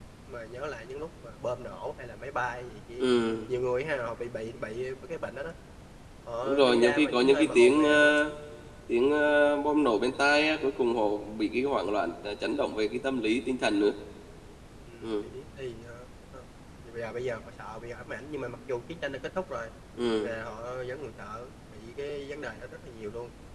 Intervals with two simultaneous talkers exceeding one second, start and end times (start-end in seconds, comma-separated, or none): 6.4-8.1